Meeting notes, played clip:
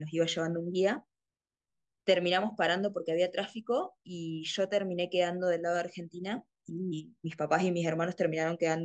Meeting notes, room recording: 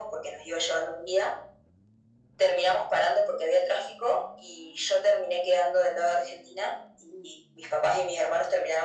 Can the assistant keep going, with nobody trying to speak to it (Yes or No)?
Yes